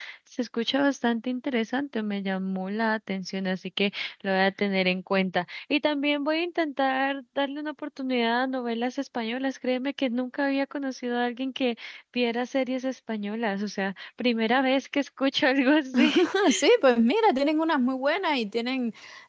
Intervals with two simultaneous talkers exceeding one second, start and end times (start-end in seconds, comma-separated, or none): none